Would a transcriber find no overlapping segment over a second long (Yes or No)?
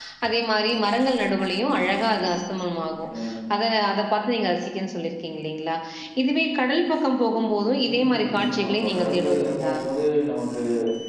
No